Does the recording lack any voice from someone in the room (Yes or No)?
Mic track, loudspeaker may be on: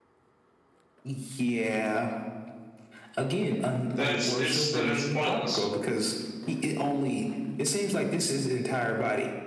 No